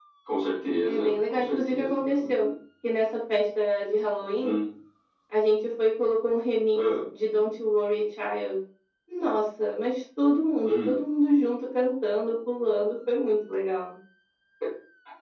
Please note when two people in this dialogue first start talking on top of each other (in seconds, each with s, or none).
0.8 s